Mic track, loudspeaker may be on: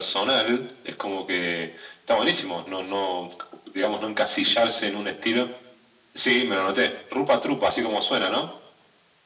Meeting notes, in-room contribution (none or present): none